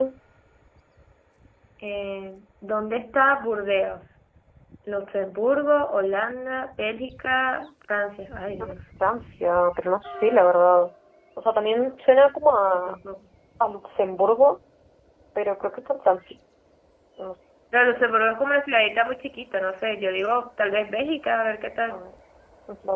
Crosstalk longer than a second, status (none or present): none